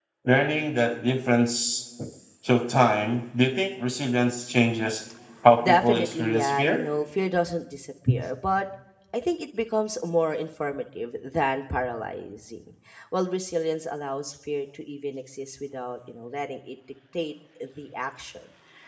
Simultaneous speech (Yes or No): Yes